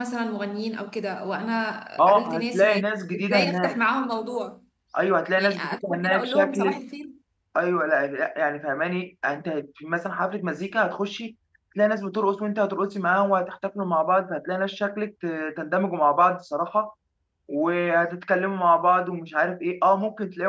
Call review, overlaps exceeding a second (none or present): present